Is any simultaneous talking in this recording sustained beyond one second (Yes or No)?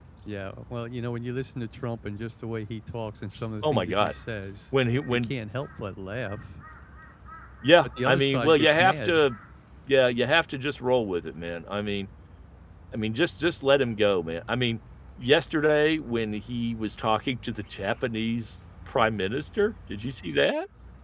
Yes